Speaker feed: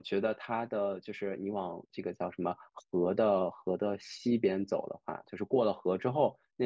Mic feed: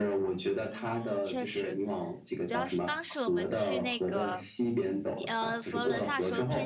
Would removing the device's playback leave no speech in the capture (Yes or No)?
No